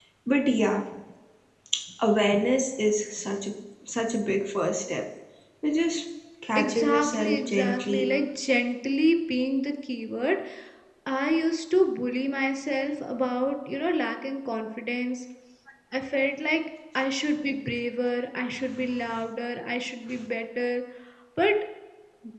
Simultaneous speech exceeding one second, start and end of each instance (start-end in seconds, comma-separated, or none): 6.6-8.1